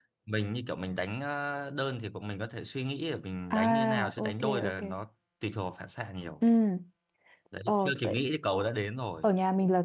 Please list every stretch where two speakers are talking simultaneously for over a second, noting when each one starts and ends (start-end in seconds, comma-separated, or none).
3.5-4.8